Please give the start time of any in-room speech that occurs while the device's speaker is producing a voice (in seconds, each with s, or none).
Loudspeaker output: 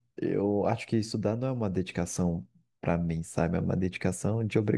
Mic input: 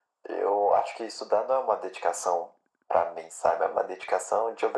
none